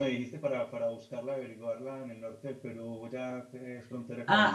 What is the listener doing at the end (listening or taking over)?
taking over